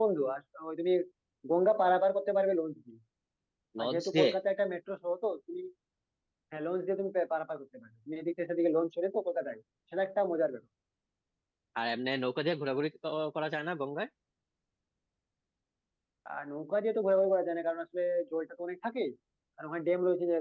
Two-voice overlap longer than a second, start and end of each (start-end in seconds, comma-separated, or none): none